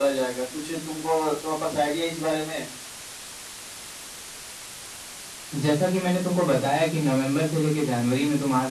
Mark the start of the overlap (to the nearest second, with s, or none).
none